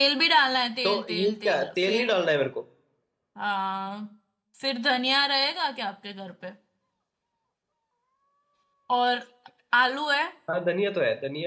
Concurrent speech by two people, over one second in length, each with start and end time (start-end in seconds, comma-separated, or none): 0.8-2.2